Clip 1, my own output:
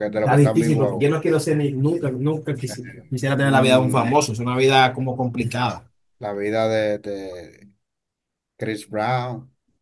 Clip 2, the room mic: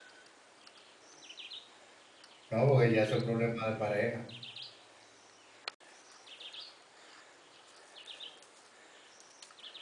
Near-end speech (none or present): present